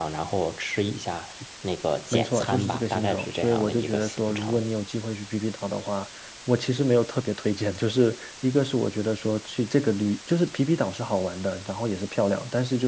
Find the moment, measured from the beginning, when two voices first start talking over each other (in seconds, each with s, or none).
2.1 s